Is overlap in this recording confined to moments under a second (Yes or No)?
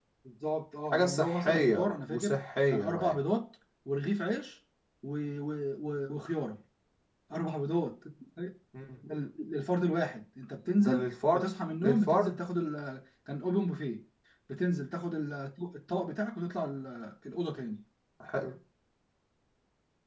No